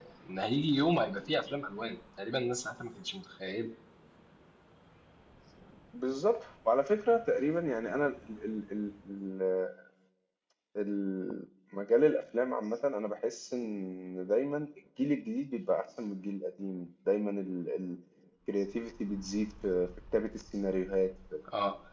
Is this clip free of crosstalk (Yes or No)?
Yes